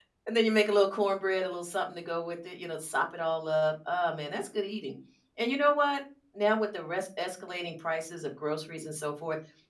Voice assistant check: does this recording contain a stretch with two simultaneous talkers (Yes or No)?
No